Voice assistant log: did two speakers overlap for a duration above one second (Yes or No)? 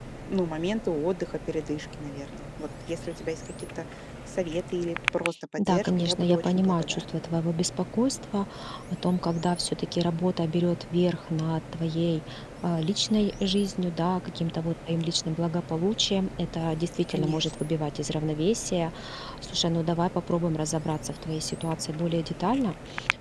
Yes